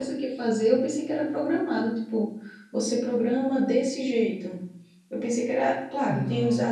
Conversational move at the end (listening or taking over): listening